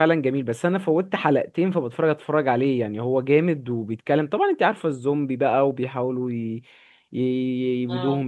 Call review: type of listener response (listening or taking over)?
listening